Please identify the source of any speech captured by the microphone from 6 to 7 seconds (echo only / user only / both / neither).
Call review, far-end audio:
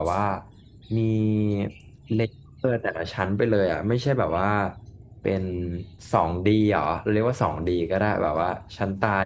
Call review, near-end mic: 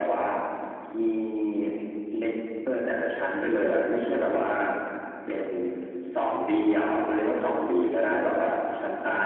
echo only